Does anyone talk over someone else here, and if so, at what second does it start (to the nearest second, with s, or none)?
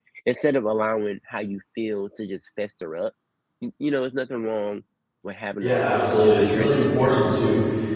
6 s